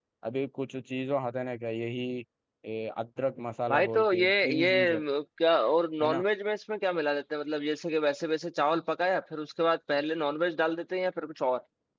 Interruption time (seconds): 4 s

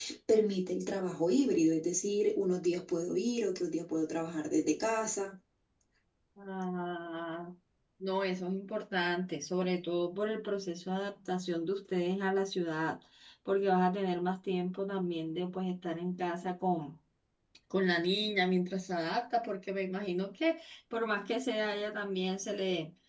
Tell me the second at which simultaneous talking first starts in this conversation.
none

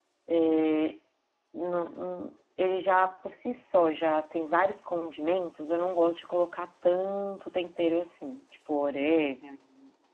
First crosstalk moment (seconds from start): none

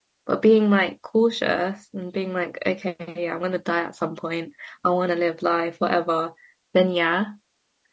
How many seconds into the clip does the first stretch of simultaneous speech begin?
none

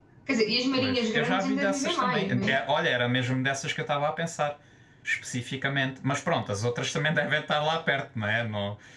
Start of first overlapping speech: 1 s

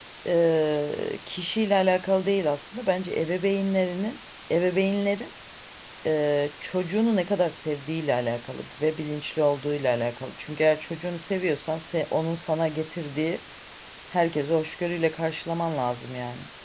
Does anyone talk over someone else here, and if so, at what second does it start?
none

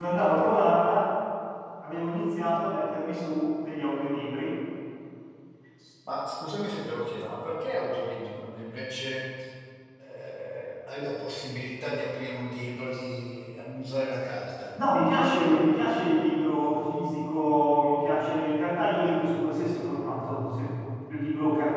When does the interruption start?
none

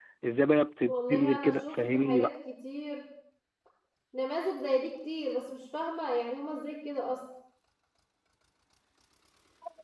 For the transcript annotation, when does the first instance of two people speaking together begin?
1 s

